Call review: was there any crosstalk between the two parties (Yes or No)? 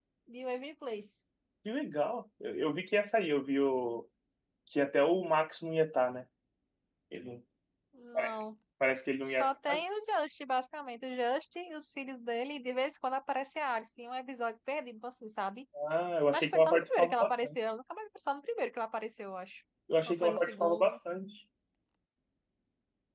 Yes